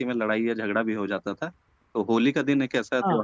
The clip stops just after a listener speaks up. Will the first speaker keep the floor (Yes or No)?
Yes